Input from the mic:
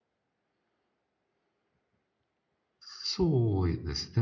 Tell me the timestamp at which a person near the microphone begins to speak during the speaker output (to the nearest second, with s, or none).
3 s